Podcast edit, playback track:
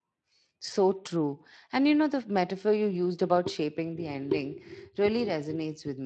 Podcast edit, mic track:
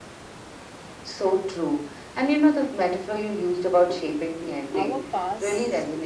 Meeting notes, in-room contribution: present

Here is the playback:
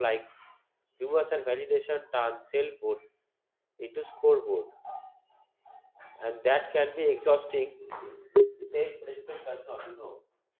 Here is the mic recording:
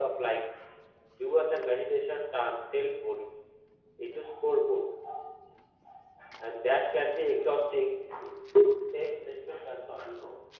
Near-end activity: none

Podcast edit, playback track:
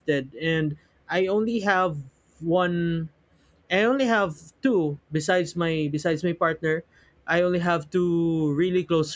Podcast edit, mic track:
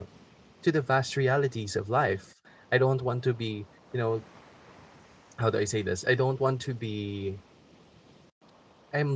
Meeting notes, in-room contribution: present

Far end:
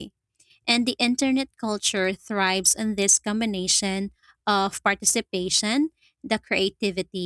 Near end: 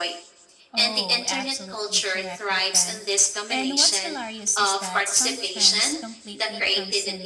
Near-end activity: present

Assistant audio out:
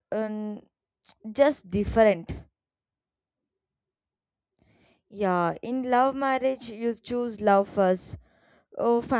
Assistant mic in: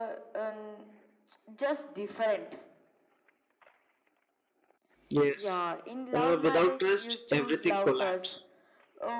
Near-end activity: present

